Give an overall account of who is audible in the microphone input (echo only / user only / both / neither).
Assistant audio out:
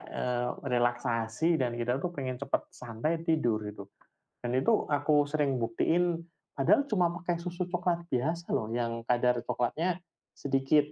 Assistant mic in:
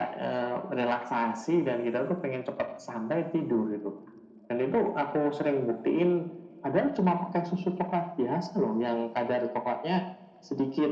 echo only